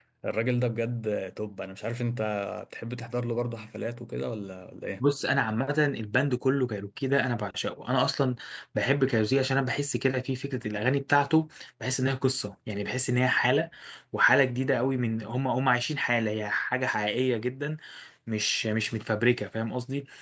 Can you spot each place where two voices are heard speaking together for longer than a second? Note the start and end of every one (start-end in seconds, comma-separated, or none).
none